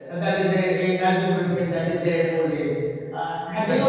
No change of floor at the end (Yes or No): Yes